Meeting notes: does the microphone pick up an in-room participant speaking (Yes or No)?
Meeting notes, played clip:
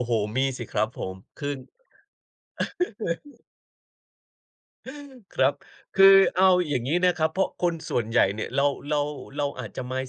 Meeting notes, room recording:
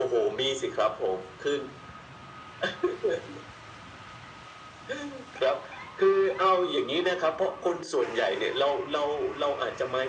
No